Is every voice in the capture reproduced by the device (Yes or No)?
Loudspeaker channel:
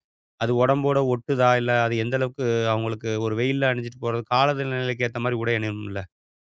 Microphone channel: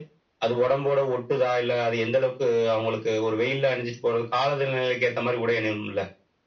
Yes